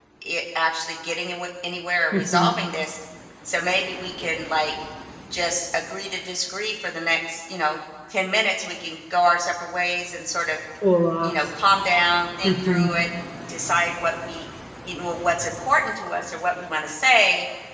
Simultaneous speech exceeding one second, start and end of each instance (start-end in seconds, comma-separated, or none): none